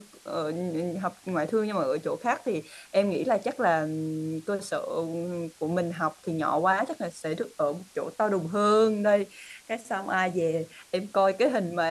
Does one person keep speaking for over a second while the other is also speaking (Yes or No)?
No